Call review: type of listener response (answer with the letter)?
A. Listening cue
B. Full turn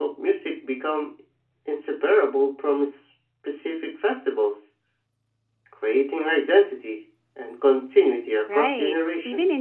B